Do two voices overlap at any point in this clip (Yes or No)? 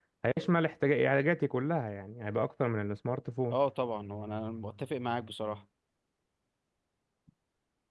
No